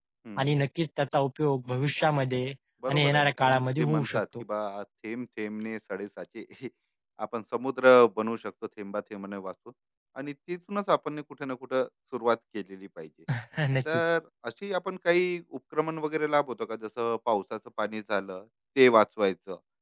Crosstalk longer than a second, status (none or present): present